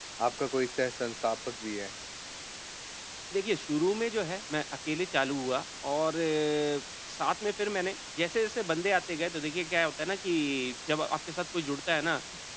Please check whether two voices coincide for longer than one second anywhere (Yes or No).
No